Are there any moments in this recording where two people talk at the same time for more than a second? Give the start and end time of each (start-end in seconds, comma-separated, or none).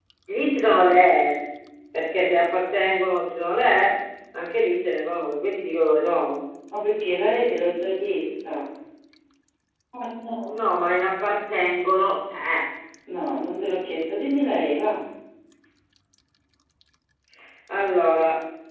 none